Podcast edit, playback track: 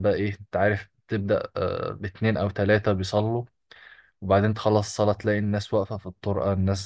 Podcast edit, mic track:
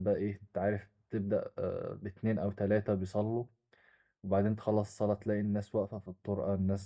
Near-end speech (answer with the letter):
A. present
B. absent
B